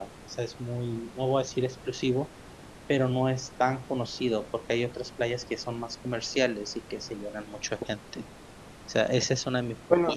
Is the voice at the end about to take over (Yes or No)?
No